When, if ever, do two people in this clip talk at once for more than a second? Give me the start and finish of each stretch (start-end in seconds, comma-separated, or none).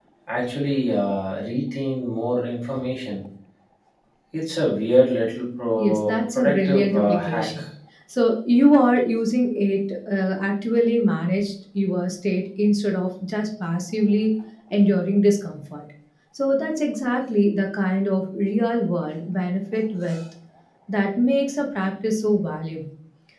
5.8-7.6